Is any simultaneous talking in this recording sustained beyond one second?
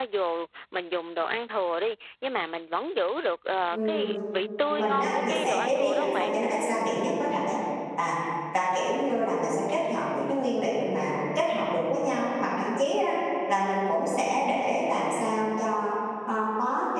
Yes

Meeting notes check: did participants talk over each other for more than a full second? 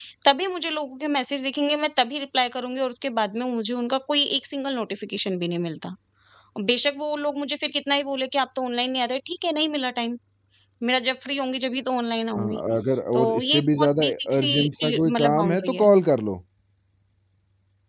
Yes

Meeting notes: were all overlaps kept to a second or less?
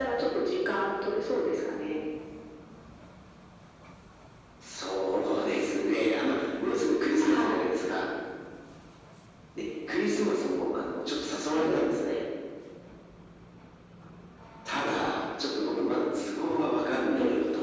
Yes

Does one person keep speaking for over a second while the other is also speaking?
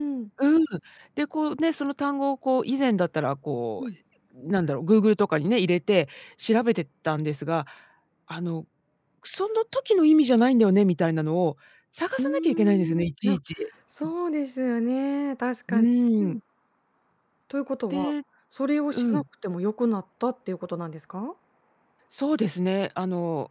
Yes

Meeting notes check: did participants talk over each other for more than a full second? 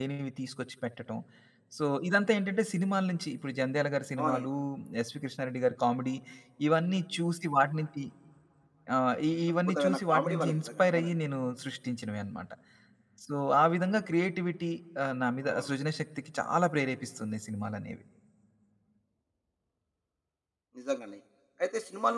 Yes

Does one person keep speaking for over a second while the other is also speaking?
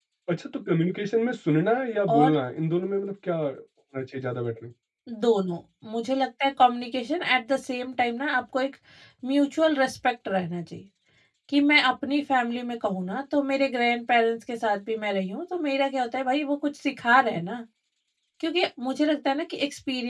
No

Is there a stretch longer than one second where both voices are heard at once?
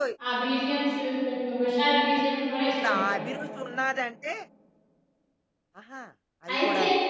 No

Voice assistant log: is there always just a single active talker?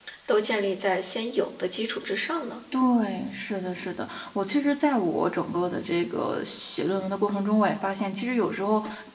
Yes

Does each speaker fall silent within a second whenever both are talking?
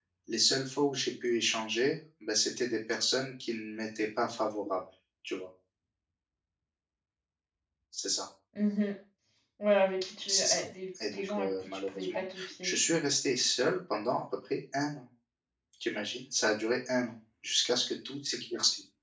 No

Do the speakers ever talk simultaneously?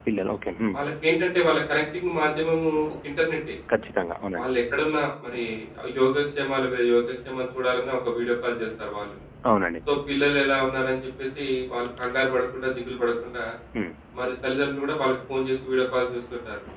No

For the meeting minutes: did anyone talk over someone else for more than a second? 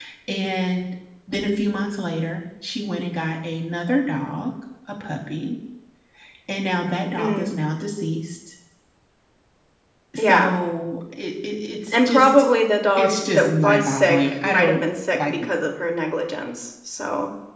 Yes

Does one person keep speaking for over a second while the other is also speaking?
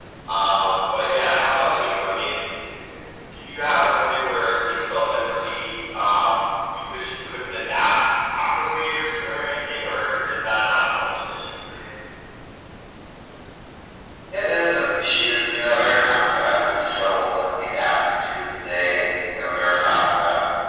No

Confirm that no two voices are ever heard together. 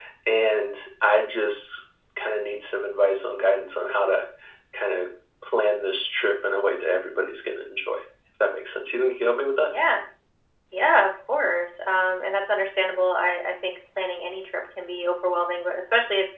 Yes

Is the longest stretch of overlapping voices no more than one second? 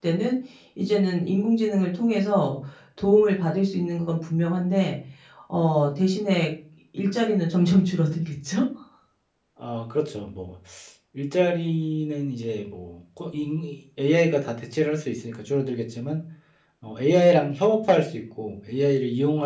Yes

